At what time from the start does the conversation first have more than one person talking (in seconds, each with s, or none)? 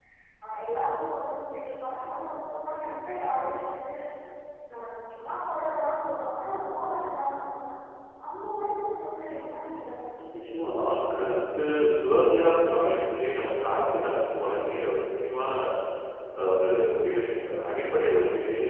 none